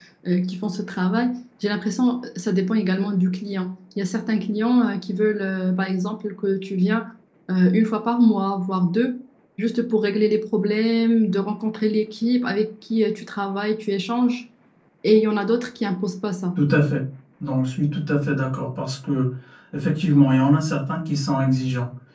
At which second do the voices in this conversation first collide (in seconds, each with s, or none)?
none